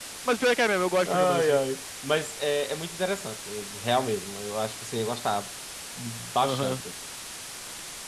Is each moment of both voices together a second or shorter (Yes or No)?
Yes